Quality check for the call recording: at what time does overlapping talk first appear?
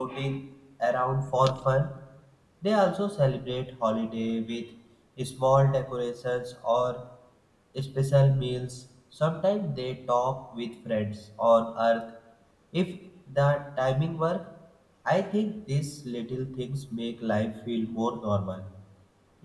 none

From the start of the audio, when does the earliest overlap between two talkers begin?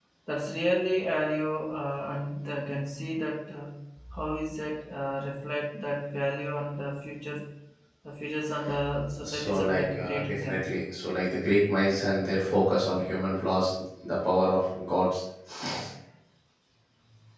9.1 s

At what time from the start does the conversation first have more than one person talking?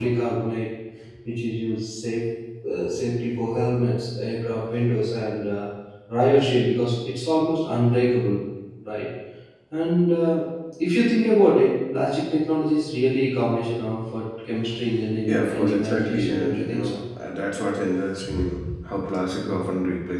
15.3 s

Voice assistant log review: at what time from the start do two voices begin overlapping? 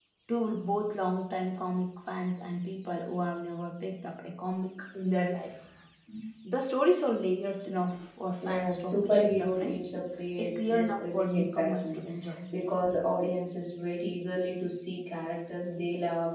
8.4 s

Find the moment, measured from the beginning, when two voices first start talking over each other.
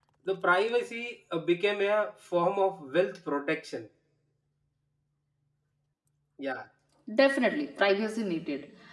none

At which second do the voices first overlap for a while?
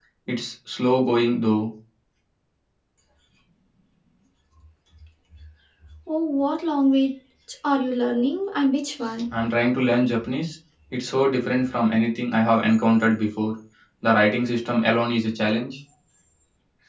none

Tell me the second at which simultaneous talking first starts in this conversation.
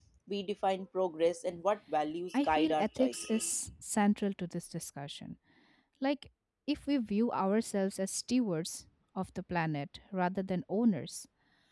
2.3 s

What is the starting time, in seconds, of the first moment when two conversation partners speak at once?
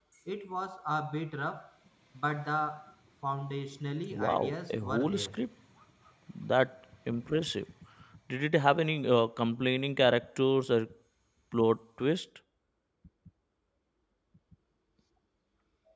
4.1 s

